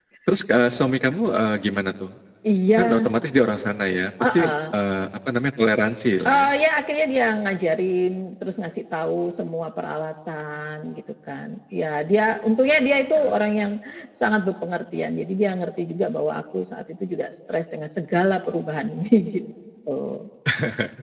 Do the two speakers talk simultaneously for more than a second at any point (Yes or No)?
No